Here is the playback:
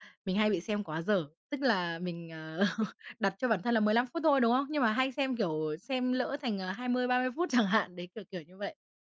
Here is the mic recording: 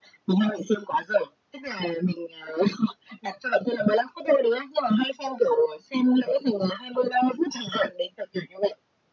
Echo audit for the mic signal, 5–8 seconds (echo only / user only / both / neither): echo only